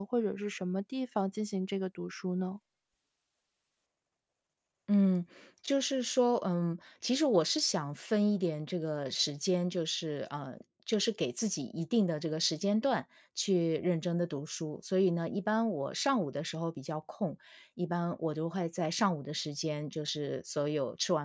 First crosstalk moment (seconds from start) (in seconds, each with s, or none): none